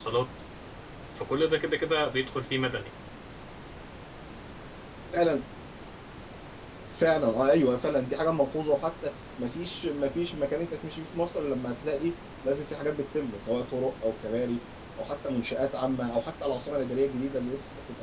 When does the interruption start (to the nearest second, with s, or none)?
none